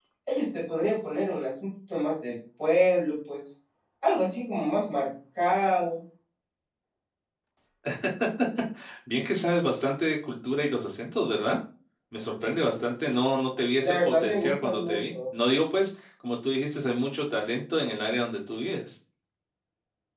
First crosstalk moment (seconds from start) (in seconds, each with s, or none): 13.8 s